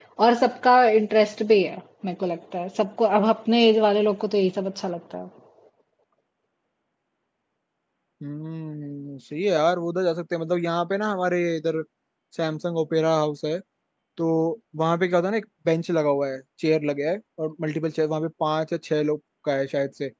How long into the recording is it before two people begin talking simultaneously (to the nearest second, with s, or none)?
none